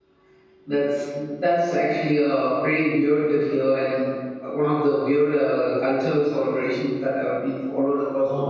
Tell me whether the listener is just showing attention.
No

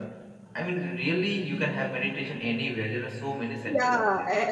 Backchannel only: No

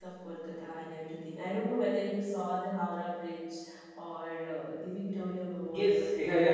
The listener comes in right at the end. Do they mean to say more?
Yes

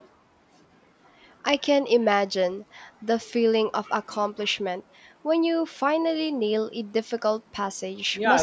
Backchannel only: No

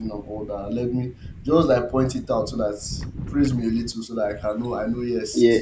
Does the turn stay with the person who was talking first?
No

